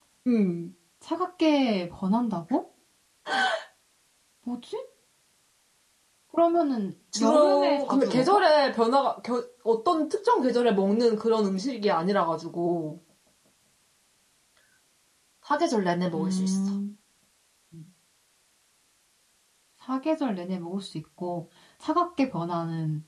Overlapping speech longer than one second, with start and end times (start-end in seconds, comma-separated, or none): 7.2-8.4